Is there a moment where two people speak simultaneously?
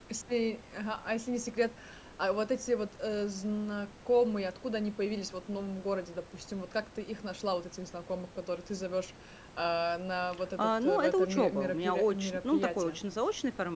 Yes, from 10.6 s

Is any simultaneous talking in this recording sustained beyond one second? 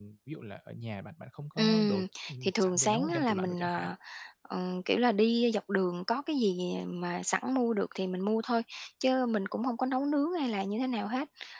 Yes, from 1.6 s

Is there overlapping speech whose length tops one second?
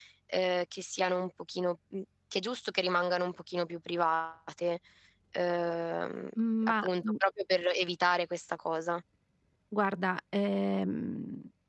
No

